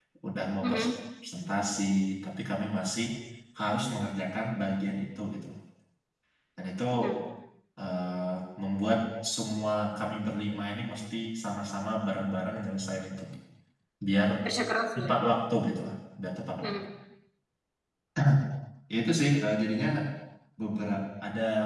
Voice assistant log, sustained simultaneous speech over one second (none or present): none